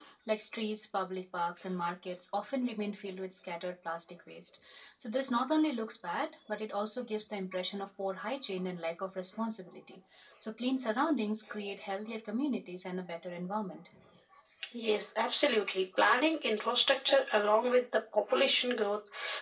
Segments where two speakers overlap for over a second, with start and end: none

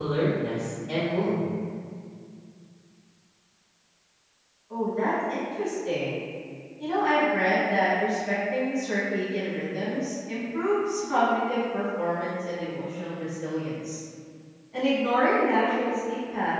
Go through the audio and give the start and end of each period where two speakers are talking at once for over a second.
none

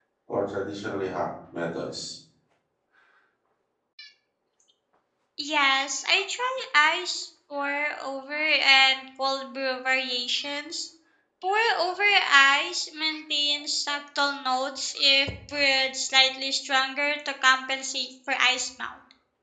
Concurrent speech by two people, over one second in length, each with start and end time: none

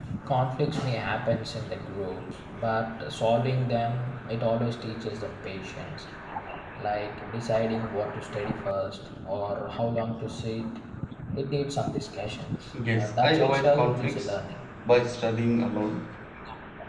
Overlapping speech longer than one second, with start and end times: 12.9-14.4

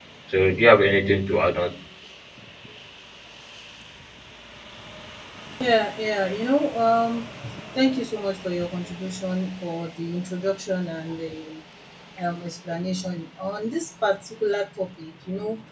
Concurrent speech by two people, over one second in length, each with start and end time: none

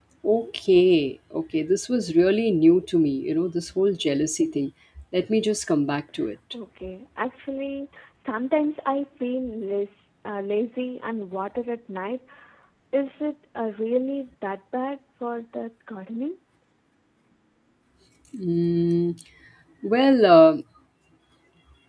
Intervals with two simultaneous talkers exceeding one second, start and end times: none

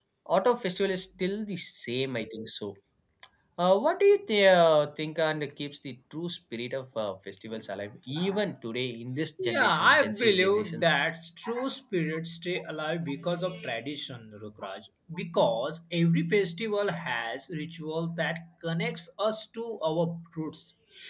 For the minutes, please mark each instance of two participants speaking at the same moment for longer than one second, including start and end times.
9.4-11.1

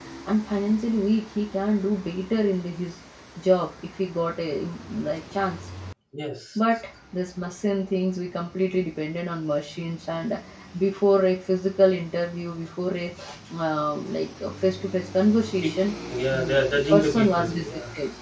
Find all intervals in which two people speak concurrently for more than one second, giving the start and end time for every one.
16.3-17.7

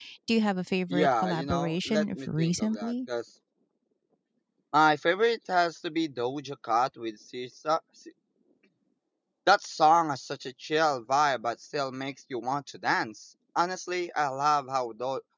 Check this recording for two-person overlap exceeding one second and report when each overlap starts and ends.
0.9-2.9

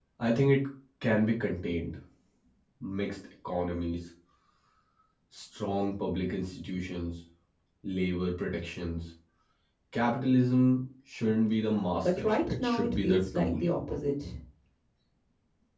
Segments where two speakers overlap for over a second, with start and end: 12.0-13.5

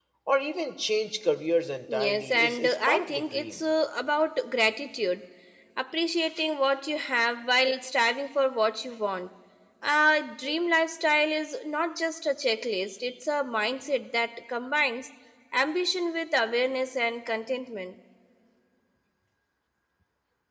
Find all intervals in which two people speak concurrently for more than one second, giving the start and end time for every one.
1.9-3.6

